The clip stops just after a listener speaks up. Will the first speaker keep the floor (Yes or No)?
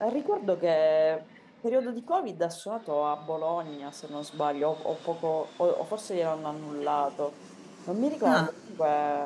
Yes